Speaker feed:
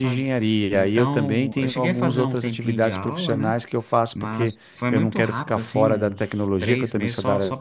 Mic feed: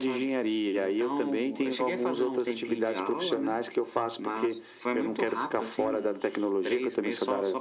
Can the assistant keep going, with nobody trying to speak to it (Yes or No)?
Yes